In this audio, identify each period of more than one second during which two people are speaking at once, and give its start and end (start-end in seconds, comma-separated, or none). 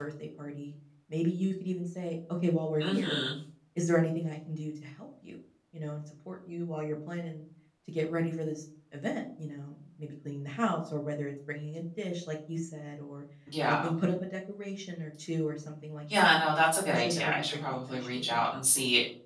16.8-18.4